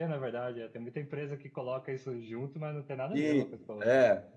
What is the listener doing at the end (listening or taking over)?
taking over